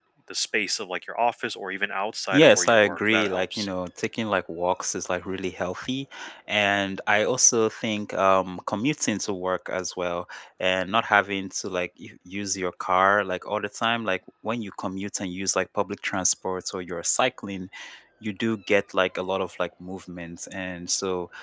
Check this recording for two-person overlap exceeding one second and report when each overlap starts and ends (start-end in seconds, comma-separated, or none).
2.3-3.7